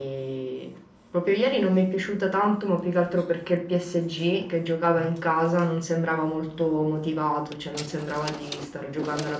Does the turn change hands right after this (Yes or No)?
No